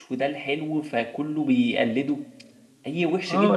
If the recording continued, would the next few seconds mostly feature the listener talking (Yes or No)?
Yes